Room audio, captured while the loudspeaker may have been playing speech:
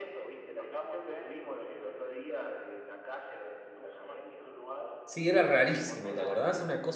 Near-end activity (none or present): present